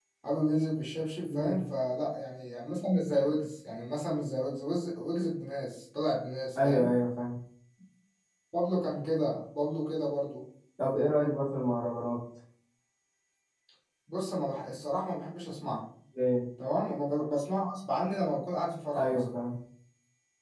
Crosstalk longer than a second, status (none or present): none